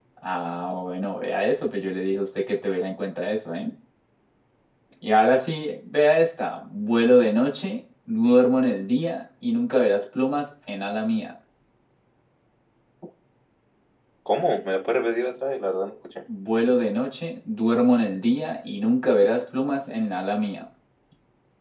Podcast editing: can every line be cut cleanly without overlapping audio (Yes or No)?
Yes